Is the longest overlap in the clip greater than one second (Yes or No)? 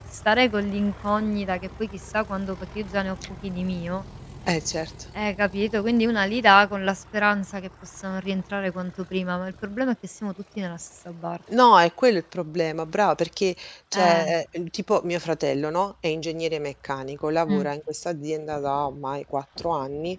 No